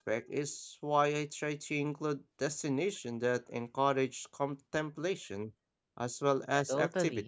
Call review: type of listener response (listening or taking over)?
taking over